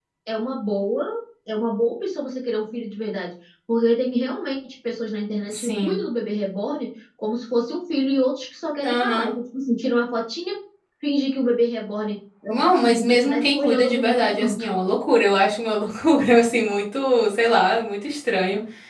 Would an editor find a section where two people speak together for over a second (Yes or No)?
Yes